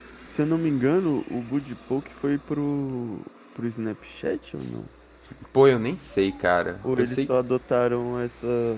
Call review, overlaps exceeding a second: none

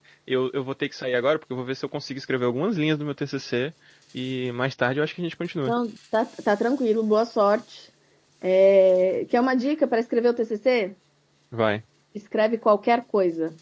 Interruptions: none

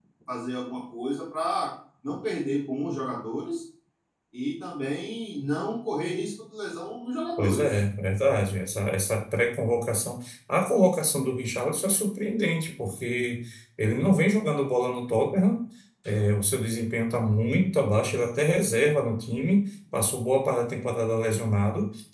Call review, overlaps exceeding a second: none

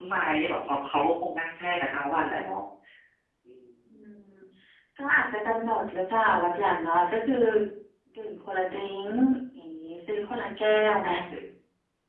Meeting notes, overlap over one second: none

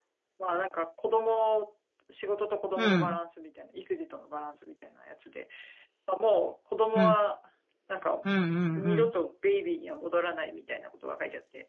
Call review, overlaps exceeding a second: none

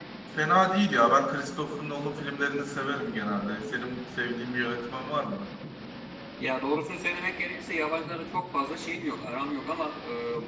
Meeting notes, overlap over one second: none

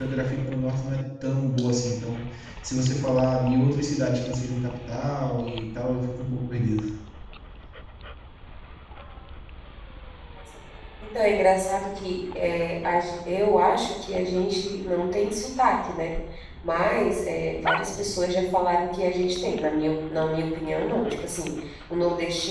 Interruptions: none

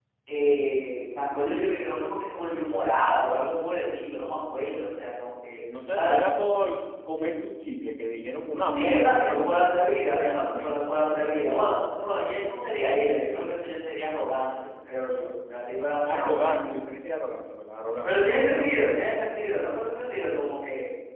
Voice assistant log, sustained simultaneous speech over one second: present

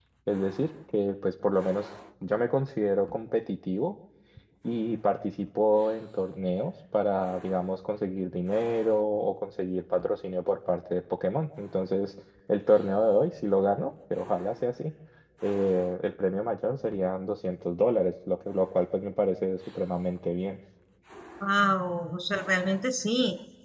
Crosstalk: none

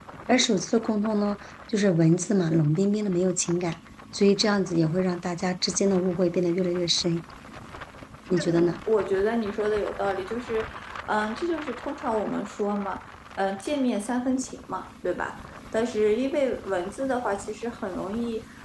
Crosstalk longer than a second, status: none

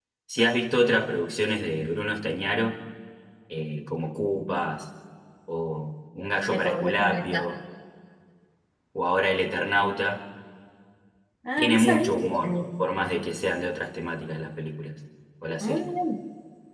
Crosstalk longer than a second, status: present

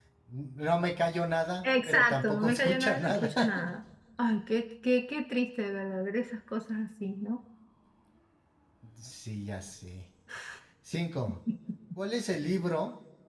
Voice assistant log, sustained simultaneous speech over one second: present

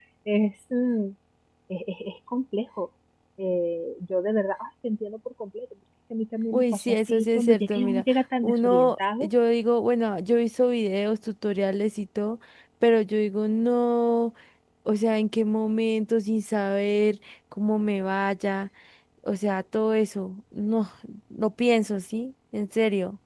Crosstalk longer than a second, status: present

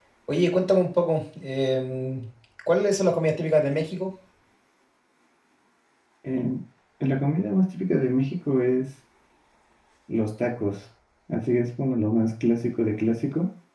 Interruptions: none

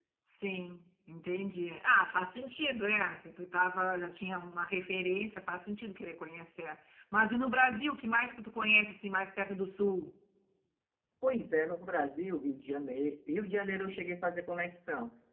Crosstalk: none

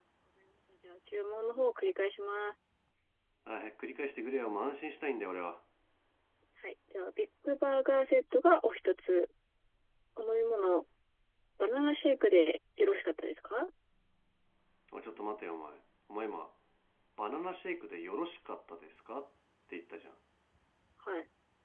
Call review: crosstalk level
none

